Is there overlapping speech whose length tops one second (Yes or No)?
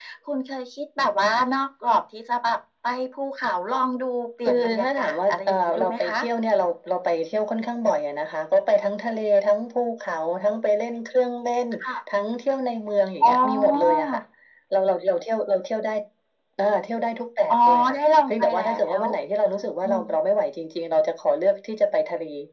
Yes